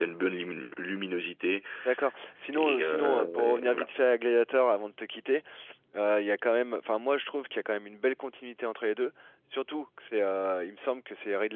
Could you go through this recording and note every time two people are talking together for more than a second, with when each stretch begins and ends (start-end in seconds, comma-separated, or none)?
2.5-3.9